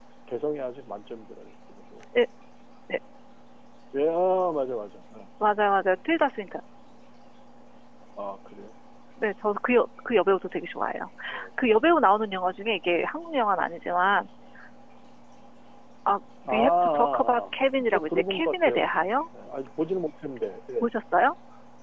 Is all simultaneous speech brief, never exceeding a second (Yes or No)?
No